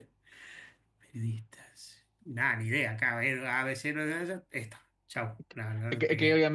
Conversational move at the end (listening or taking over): taking over